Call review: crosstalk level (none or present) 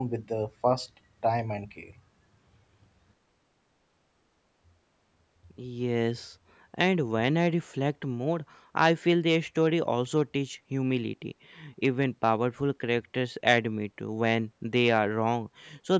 none